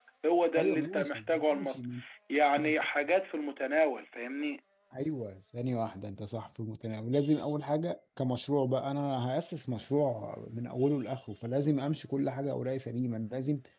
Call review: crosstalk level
present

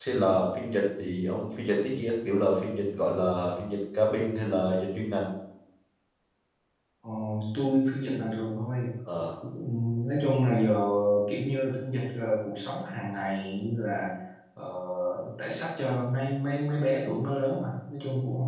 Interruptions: none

